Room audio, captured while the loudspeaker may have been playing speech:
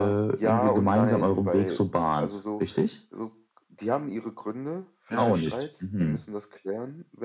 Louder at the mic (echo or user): echo